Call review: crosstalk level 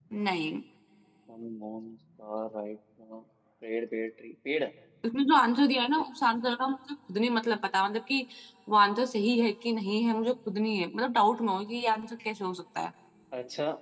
none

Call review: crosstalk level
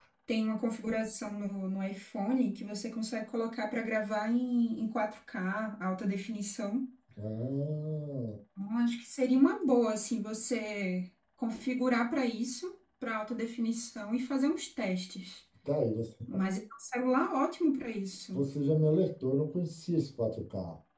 none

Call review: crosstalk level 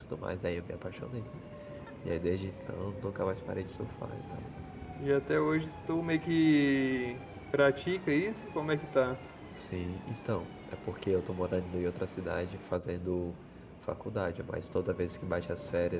none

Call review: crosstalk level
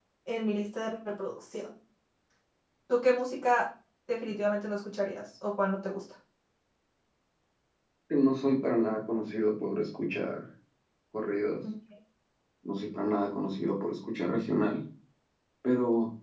none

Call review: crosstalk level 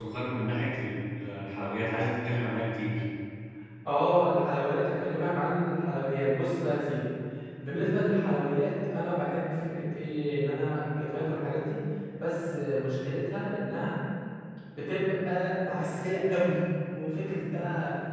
none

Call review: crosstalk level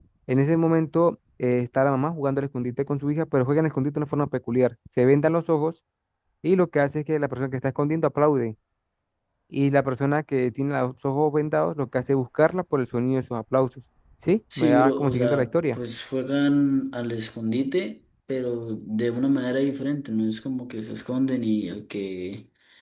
present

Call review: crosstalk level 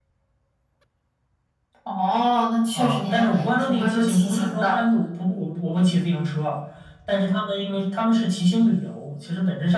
present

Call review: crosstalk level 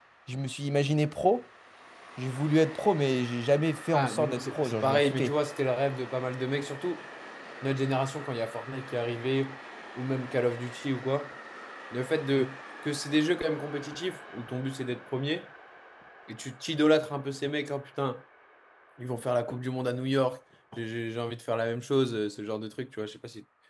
present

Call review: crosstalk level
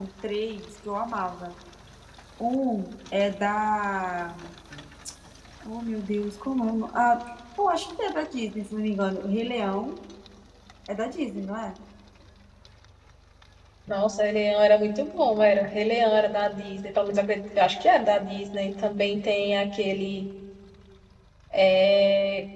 none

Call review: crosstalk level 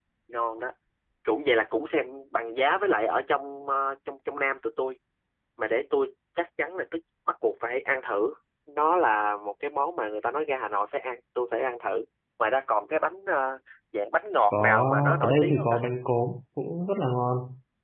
present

